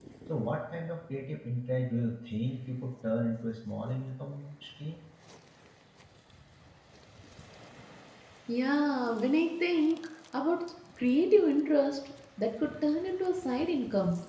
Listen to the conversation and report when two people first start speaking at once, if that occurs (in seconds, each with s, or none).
none